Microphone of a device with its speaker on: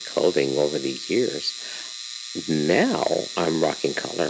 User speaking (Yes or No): No